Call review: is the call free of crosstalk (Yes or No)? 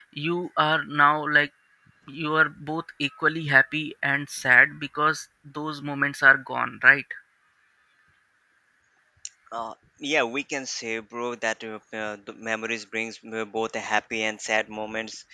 Yes